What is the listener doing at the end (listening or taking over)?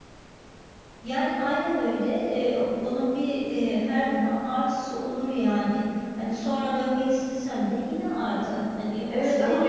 taking over